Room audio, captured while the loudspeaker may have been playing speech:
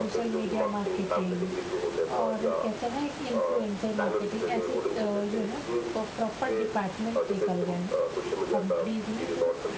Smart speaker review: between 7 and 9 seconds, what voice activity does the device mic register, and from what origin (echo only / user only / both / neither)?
both